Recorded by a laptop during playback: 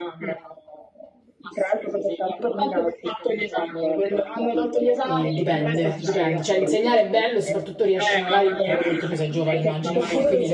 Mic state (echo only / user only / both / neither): both